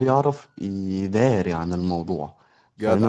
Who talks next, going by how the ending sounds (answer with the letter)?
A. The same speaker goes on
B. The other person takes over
A